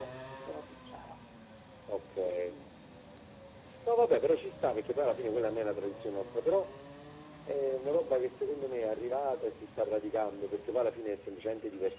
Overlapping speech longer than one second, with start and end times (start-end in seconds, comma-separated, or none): none